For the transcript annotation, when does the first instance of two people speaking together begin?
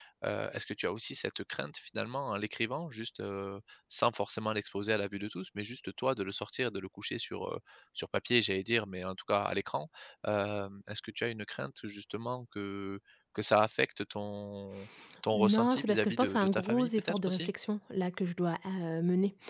15.3 s

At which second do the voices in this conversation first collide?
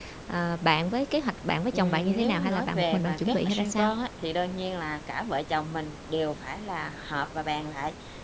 1.7 s

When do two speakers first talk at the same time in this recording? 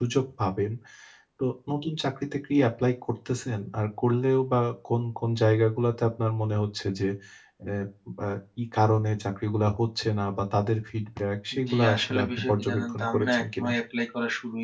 11.5 s

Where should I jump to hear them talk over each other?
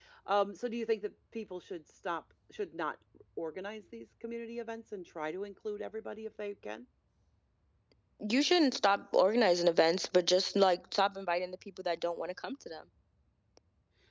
none

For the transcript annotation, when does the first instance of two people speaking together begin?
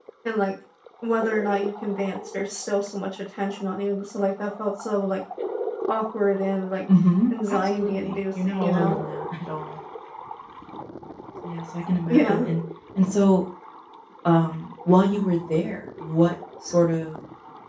7.5 s

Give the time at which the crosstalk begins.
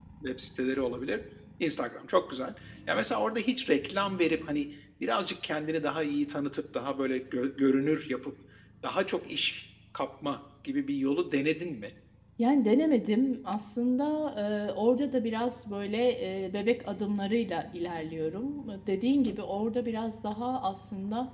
none

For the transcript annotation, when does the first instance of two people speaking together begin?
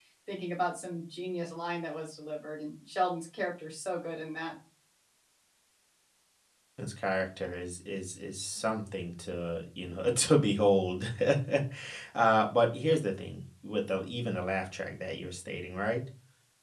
none

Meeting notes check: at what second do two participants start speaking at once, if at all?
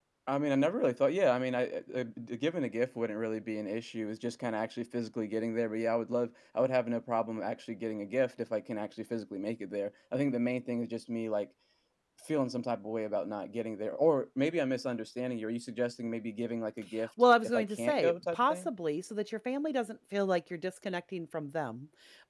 17.4 s

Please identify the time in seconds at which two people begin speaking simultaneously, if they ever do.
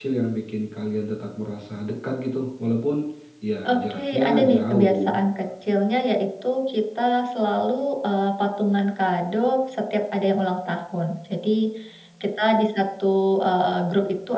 3.7 s

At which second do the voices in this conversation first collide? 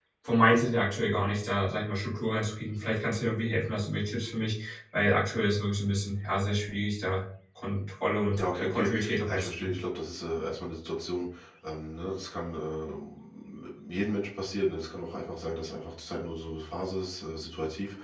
8.4 s

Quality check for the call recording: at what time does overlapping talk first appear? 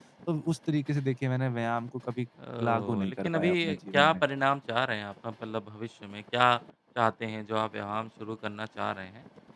2.4 s

